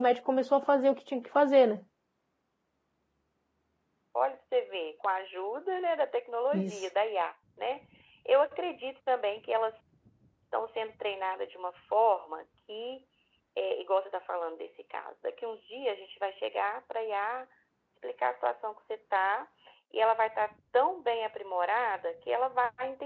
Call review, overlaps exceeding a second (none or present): none